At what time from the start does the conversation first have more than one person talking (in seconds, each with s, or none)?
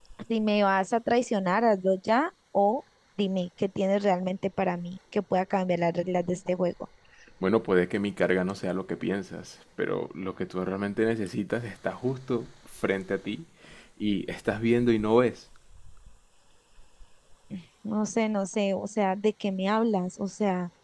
none